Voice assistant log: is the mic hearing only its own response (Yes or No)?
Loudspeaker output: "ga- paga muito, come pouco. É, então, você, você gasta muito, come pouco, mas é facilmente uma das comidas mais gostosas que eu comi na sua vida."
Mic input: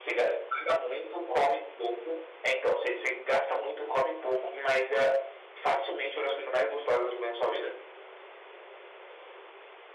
Yes